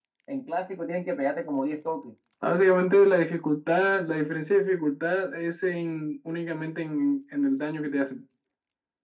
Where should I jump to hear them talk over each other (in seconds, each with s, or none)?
none